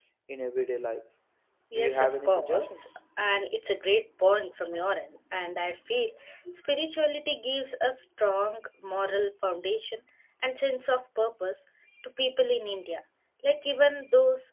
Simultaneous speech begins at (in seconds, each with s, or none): 1.8 s